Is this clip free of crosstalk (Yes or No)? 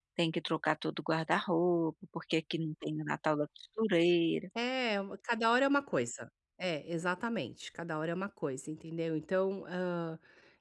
Yes